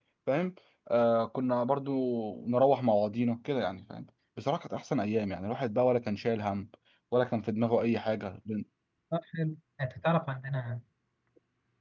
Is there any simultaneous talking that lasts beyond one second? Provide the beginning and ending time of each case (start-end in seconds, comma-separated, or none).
none